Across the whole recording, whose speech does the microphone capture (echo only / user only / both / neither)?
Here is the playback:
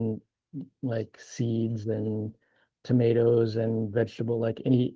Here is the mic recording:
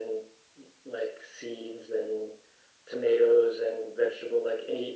echo only